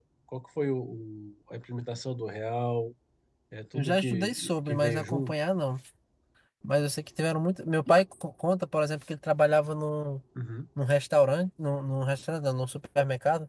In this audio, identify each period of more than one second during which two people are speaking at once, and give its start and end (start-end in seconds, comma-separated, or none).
3.7-5.4